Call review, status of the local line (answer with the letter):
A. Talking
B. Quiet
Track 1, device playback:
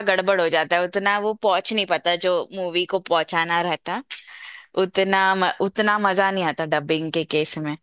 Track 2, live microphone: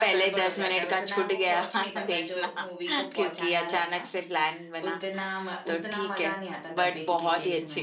A